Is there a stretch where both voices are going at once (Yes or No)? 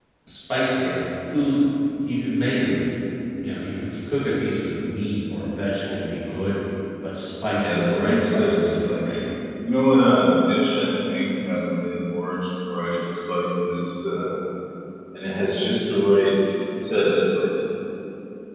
Yes